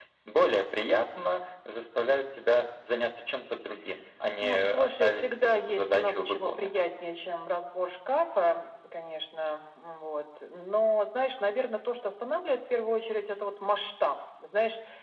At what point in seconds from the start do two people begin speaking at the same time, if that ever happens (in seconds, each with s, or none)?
4.4 s